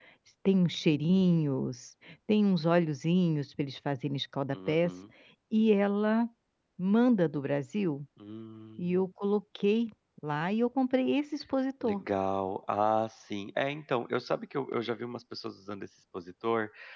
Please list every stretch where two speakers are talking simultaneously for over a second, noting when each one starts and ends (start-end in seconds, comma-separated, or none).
none